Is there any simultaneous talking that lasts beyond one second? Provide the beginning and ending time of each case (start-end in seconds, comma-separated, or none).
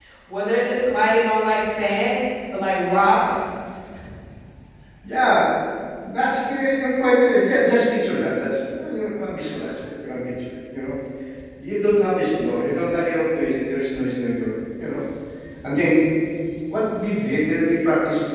none